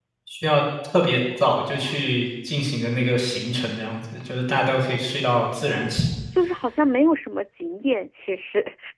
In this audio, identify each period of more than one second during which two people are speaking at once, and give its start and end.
none

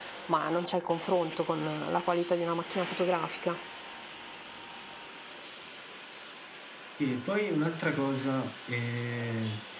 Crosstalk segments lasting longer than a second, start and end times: none

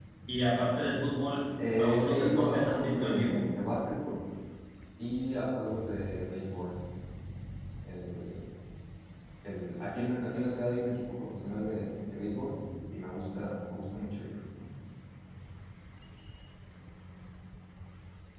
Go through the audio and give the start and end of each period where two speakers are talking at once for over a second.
1.8-3.4

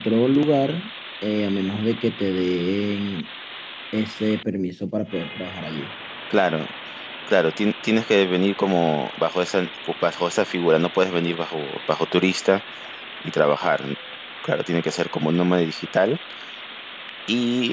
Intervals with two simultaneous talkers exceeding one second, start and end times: none

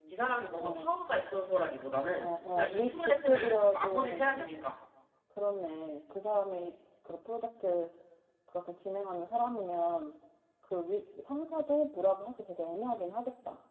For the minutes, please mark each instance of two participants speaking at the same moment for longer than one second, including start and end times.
2.1-4.7

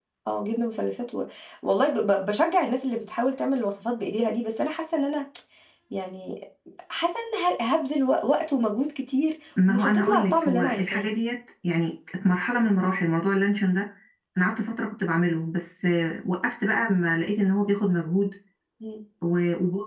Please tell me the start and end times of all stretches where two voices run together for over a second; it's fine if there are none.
9.7-11.1

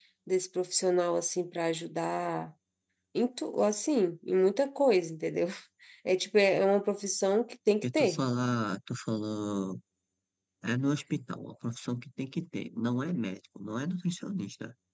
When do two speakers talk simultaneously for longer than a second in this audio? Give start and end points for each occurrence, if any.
none

